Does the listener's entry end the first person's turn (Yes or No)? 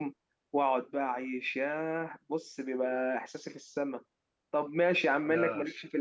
No